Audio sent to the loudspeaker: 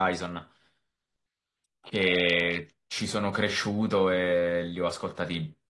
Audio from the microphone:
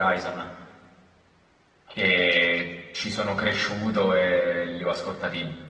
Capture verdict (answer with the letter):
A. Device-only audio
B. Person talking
A